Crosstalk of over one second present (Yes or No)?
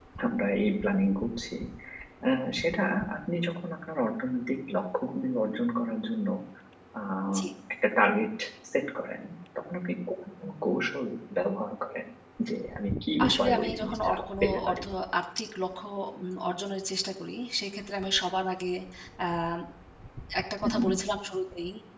Yes